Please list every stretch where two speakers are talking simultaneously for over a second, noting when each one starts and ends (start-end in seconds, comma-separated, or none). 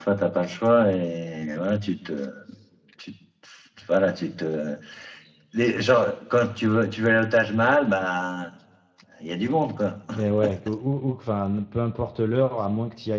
none